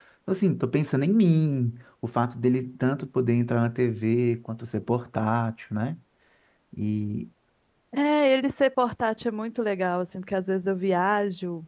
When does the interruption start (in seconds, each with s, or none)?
none